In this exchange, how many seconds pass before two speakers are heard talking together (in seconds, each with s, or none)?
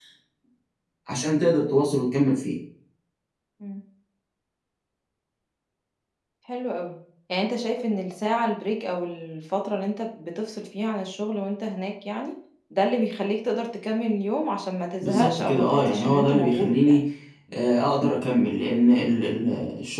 15.0 s